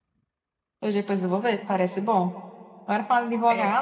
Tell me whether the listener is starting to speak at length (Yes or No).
No